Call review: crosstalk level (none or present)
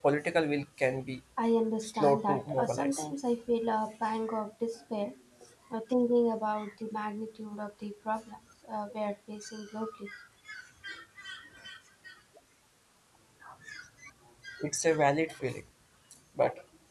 present